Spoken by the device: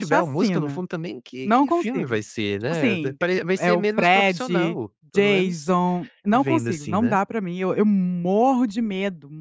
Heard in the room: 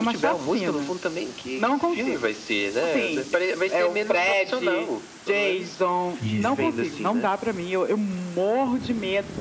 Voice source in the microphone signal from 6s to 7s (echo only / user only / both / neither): both